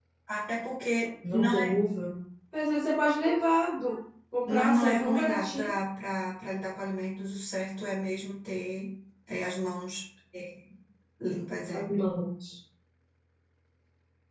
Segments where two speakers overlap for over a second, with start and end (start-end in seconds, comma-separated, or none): 4.5-5.7